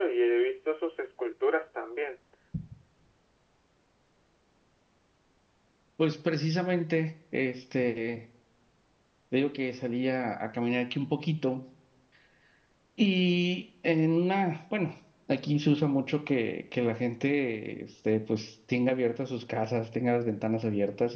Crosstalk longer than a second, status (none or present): none